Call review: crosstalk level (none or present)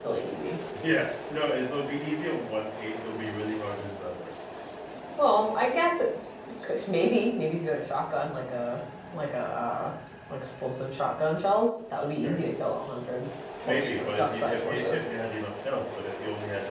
present